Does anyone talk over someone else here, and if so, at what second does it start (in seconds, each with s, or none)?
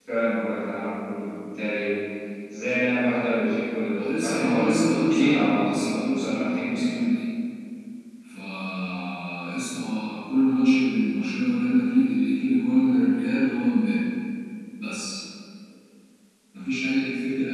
3.9 s